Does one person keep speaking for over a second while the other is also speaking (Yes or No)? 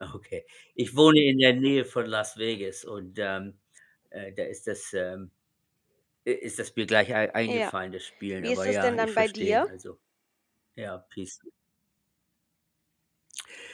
Yes